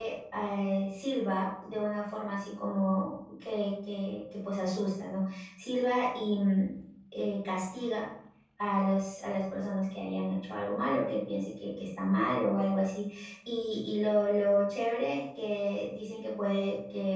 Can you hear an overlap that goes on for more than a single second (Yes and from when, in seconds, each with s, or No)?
No